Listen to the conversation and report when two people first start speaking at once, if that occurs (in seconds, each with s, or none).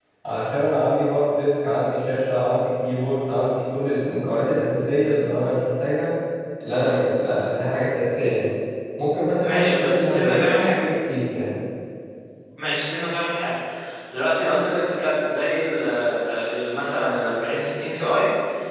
9.4 s